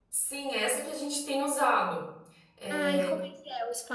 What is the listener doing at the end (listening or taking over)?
taking over